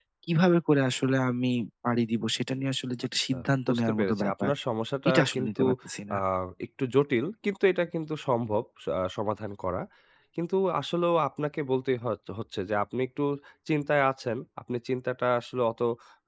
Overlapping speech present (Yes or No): Yes